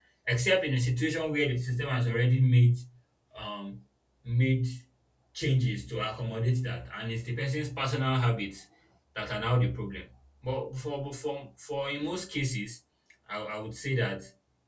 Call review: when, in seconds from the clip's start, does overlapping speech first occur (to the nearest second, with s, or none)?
none